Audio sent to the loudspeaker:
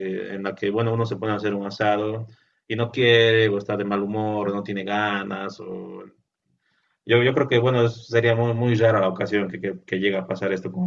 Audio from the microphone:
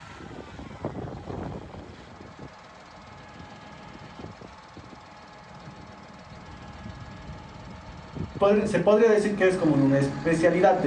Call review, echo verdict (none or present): none